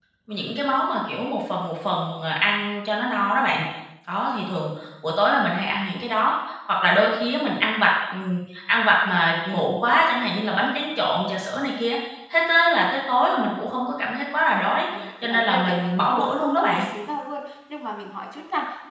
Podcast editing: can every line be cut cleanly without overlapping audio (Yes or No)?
No